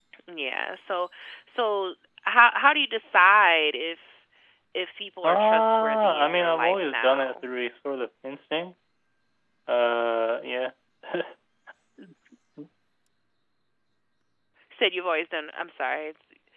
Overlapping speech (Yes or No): Yes